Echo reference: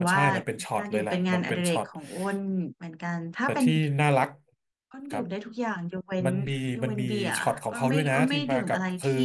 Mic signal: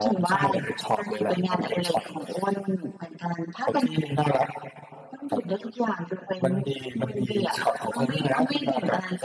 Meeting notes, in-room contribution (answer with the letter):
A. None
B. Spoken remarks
A